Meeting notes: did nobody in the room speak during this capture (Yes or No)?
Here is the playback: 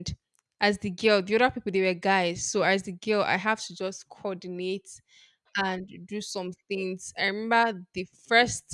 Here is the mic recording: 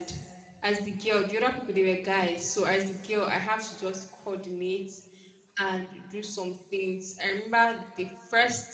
Yes